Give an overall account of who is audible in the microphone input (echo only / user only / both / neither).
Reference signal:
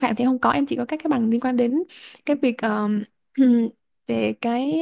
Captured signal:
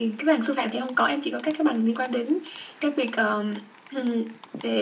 echo only